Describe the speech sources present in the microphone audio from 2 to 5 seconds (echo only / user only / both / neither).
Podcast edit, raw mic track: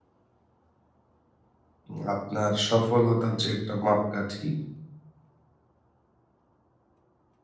user only